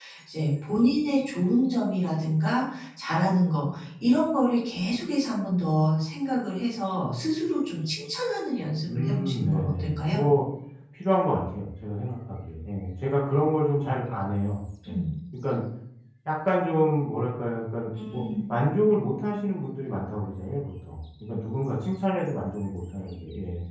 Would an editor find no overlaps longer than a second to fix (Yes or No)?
No